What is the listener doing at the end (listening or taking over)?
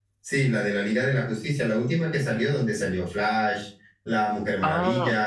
taking over